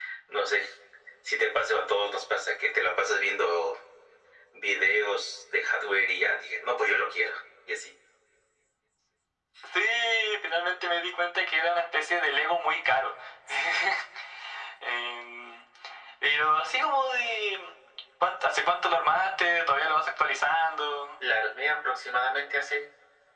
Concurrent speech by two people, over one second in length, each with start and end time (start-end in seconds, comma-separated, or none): none